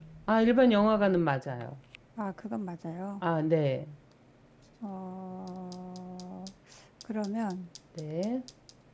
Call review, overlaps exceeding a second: none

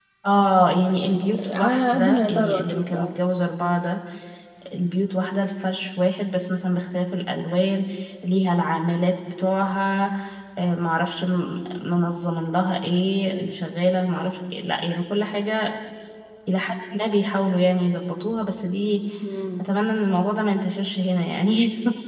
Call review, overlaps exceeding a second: present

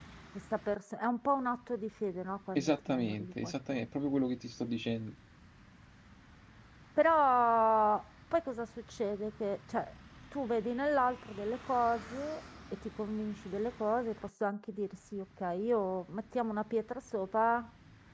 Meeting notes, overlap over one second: present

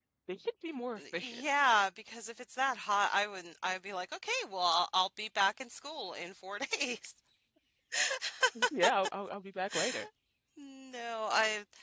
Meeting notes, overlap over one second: none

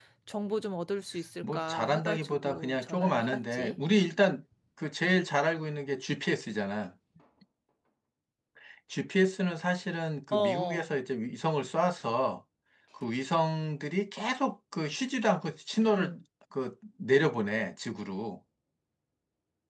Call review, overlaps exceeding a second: present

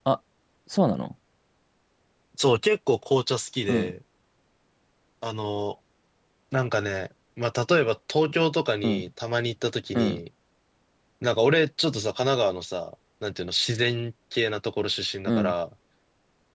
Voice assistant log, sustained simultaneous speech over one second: none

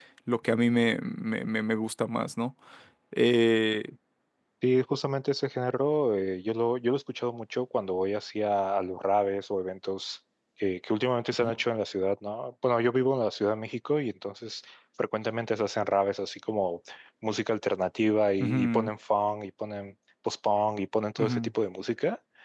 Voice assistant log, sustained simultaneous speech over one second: none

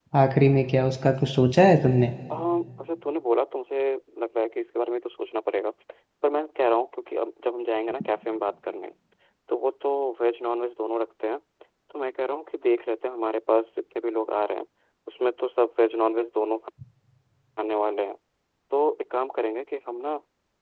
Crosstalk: none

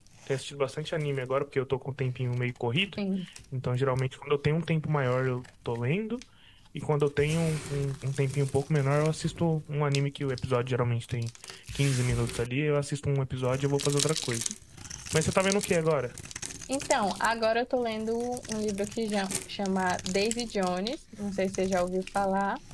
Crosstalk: none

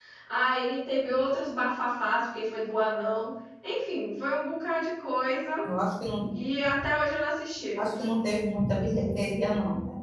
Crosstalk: none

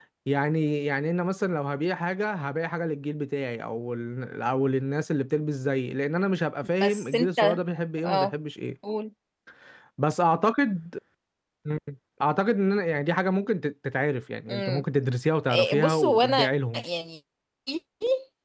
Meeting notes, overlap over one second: present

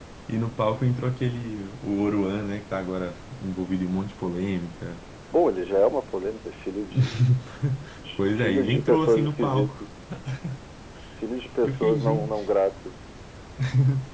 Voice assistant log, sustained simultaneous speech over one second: present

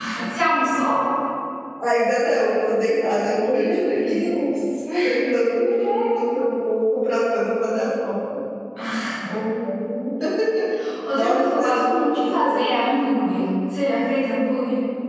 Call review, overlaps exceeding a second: present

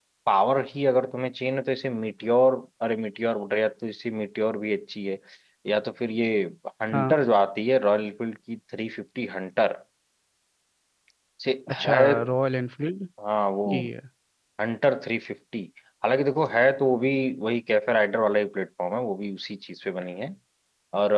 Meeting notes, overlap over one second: none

